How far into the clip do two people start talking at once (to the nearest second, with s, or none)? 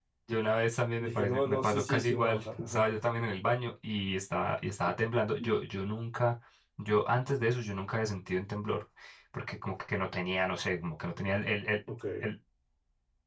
1 s